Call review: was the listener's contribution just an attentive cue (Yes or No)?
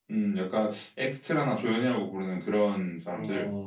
No